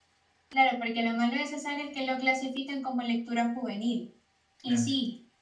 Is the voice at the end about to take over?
No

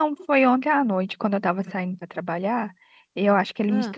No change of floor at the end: Yes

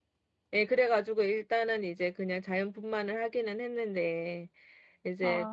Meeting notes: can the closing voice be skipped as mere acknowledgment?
Yes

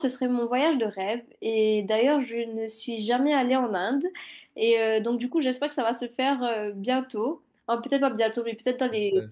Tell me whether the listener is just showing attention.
Yes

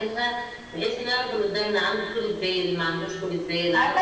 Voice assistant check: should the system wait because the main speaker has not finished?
No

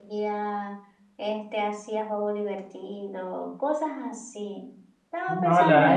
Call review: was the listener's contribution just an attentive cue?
No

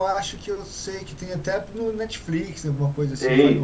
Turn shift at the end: Yes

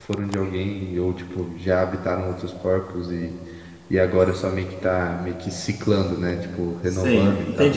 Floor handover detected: Yes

